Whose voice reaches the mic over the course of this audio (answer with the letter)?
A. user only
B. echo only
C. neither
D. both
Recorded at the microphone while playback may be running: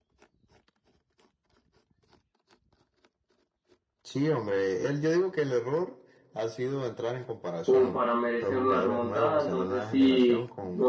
D